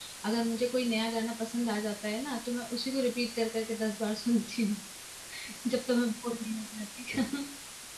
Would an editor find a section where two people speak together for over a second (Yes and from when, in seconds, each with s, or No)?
No